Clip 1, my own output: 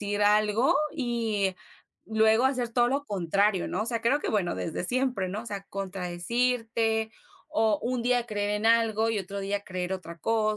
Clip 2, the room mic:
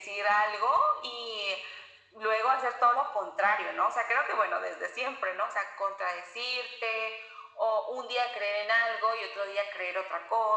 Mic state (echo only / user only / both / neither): echo only